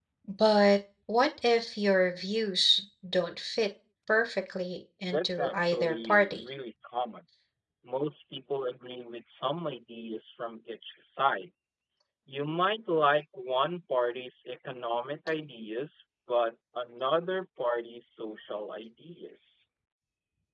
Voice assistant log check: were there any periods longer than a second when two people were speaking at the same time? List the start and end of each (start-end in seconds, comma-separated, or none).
5.1-6.4